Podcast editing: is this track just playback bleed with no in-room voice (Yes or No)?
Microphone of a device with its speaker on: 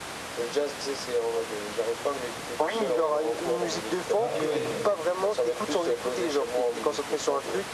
No